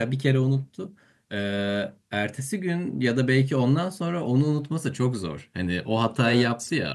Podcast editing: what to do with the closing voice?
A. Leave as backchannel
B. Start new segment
A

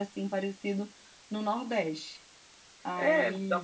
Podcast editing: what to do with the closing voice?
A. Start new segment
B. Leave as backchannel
A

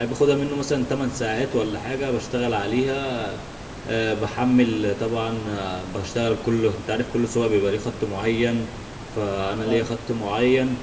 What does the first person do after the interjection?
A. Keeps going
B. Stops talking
A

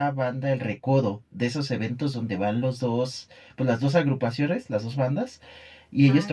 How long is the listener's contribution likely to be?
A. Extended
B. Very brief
B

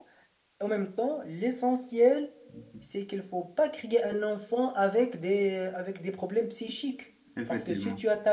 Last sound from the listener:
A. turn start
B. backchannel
B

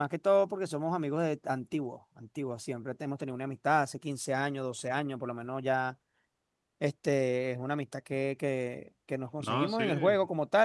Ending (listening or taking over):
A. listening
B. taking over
A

